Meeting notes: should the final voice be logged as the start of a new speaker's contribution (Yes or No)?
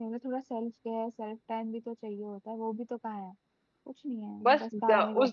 Yes